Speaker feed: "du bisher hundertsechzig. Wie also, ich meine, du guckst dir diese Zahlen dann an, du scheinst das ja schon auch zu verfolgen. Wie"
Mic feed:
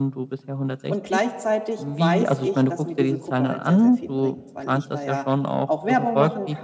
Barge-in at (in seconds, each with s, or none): 0.9 s